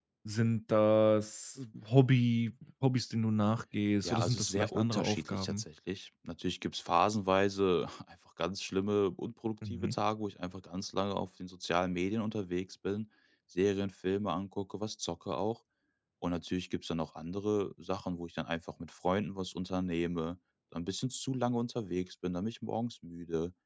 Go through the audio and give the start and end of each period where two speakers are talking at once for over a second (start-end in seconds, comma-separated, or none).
4.0-5.6